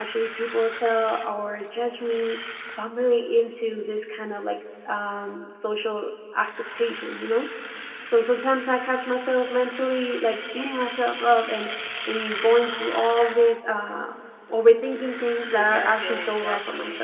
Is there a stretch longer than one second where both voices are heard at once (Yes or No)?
Yes